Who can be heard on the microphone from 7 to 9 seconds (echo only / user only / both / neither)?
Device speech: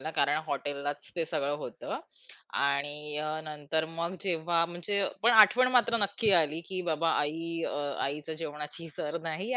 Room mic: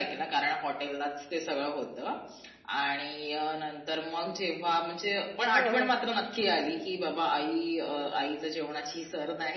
echo only